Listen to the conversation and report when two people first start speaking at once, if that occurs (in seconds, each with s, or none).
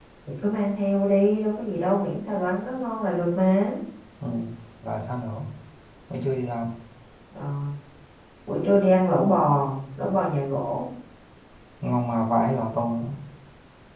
none